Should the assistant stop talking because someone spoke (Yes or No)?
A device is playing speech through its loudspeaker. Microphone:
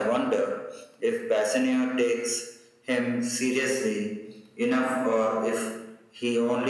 No